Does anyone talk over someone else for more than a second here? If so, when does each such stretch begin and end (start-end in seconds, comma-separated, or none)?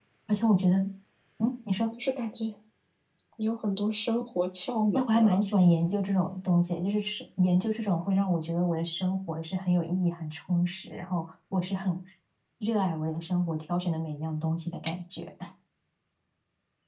none